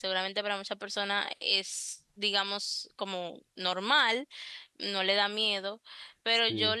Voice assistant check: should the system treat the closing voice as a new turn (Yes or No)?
No